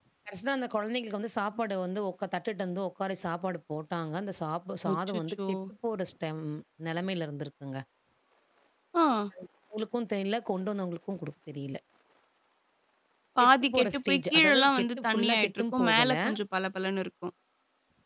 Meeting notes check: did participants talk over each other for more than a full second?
Yes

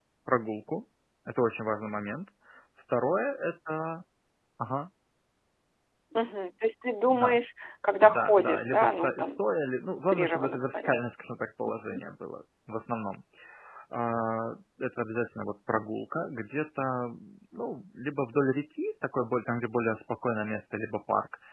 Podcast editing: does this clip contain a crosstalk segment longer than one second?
Yes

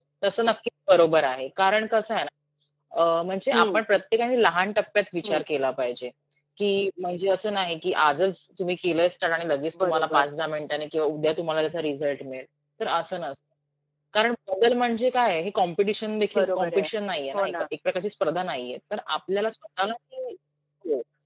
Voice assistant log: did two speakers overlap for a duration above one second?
No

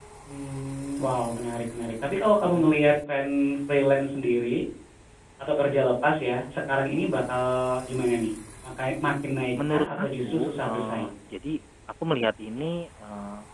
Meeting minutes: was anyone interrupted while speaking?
Yes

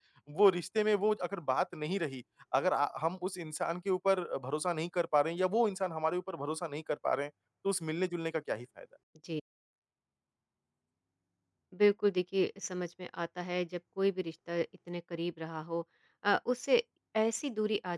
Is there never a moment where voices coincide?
Yes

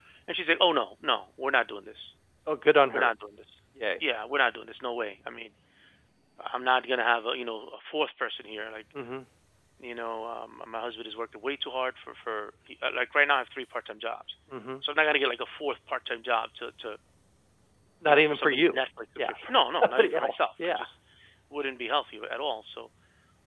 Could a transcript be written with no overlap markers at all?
No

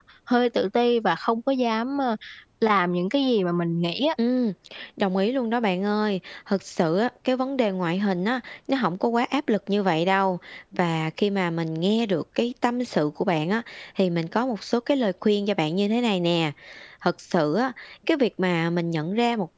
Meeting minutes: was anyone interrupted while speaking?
No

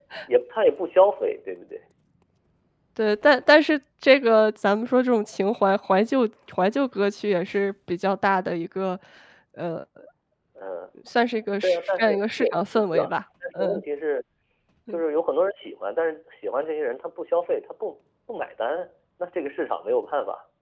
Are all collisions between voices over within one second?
No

